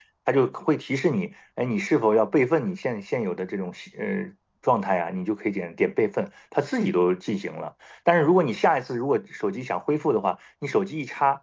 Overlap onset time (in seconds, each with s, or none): none